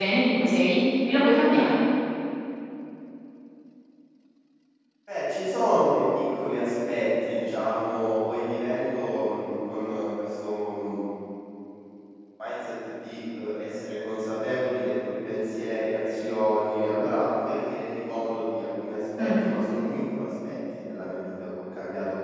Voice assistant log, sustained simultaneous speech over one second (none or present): none